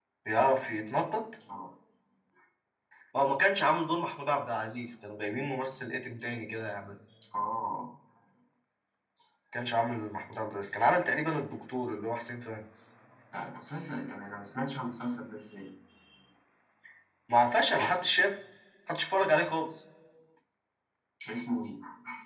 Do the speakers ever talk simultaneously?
No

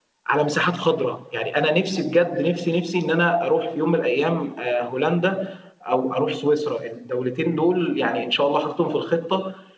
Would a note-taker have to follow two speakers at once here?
No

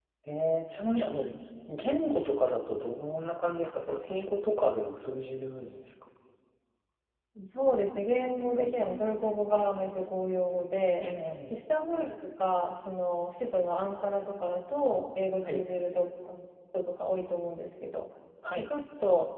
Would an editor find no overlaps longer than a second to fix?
Yes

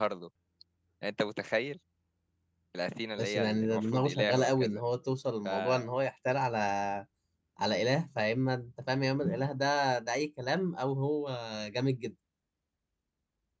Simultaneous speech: Yes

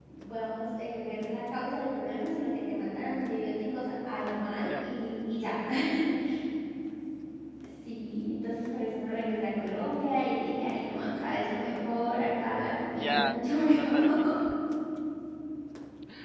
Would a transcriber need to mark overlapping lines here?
Yes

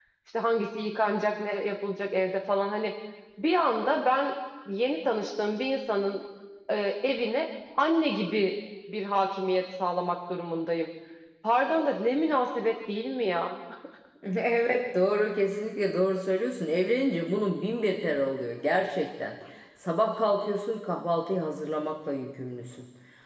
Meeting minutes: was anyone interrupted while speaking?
No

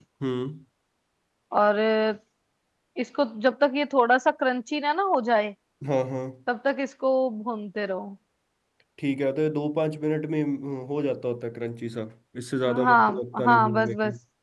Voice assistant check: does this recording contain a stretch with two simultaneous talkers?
Yes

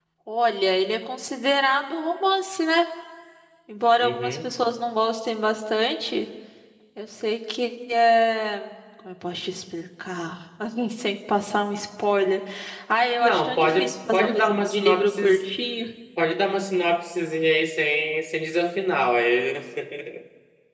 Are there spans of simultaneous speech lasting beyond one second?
Yes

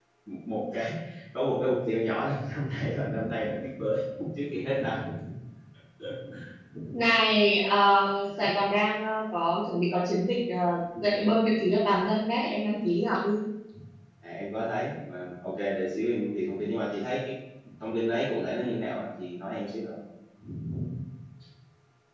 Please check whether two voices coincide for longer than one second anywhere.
No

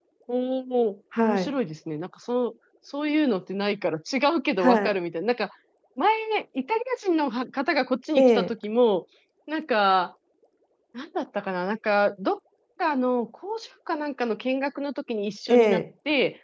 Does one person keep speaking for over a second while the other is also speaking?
No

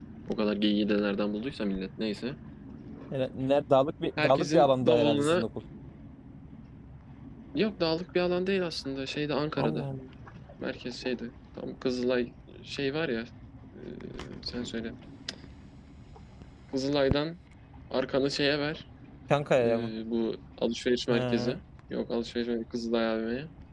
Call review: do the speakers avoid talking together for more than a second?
No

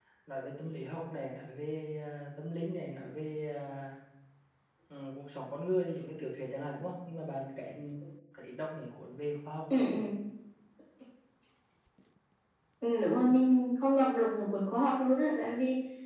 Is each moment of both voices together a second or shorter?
Yes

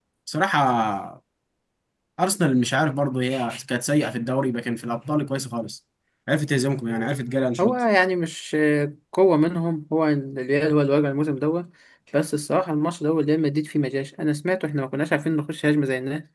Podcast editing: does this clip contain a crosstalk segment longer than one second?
No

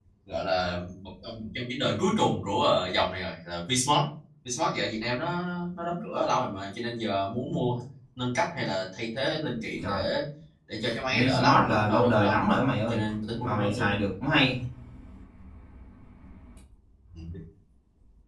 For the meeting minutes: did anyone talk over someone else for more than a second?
Yes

